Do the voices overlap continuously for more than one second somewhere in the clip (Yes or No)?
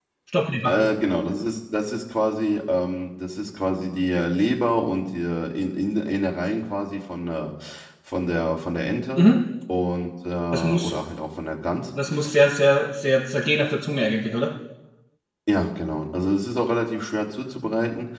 No